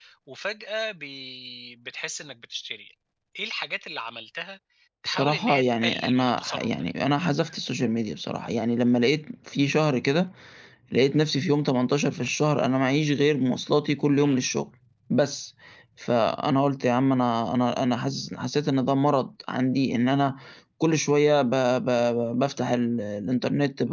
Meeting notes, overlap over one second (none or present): present